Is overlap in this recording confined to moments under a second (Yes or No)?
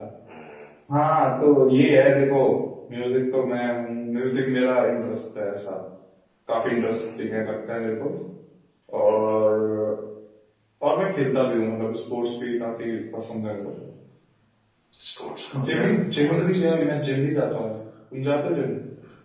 No